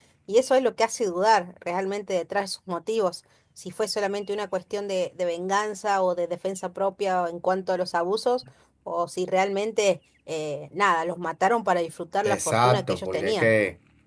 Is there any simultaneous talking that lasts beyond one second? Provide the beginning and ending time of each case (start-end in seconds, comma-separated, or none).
12.2-13.5